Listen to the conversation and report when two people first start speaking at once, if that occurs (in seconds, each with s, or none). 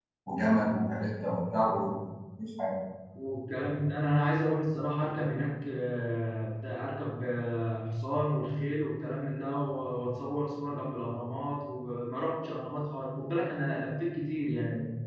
none